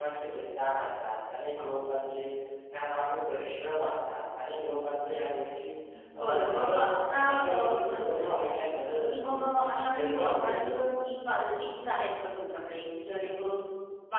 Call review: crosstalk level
present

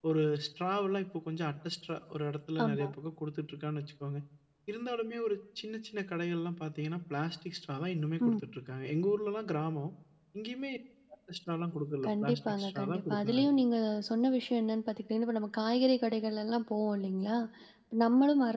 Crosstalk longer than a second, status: present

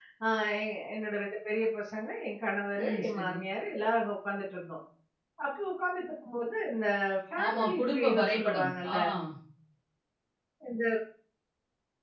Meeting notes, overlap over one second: present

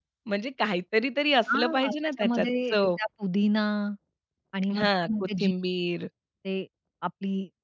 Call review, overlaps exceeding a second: present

